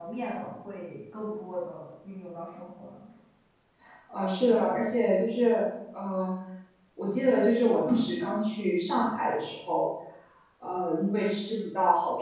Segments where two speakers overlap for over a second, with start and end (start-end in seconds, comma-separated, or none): none